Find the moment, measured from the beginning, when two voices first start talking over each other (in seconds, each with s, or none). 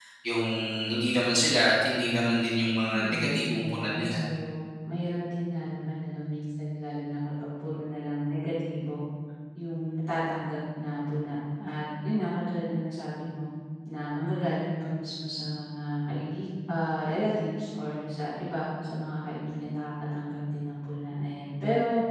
2.9 s